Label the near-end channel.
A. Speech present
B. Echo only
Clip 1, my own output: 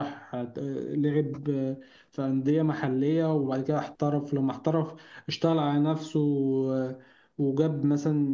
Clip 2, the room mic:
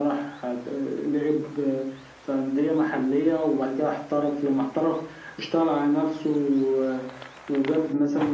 B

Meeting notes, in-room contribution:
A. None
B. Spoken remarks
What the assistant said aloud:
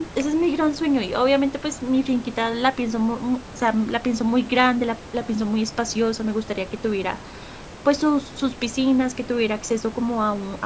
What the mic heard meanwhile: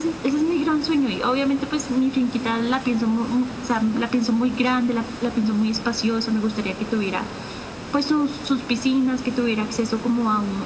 A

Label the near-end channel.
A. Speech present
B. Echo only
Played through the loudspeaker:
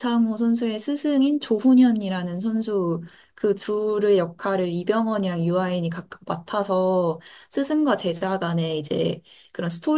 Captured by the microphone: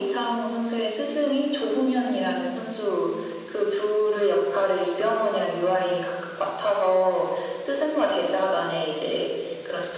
B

